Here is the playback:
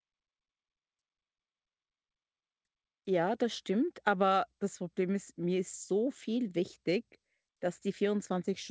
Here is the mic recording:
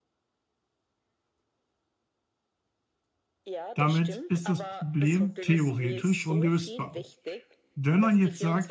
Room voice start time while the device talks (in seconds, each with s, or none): 3.7 s